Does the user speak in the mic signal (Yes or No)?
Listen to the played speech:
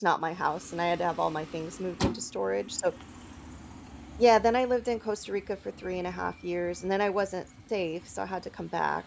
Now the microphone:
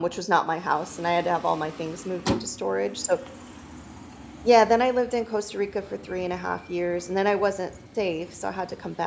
No